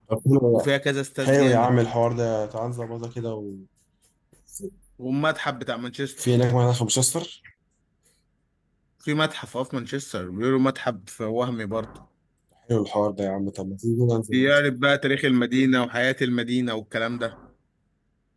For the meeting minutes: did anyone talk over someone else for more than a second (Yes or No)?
No